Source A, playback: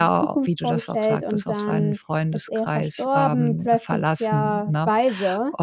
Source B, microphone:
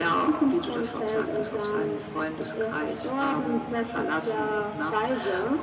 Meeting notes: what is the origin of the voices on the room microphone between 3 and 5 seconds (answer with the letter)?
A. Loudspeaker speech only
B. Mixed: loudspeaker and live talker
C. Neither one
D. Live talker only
A